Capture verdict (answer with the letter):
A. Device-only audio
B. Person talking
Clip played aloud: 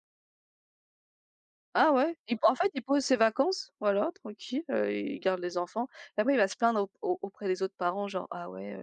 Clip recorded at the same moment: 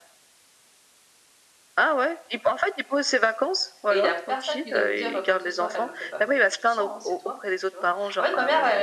B